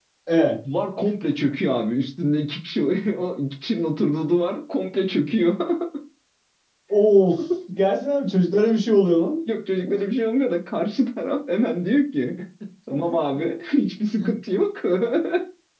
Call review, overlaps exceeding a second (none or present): none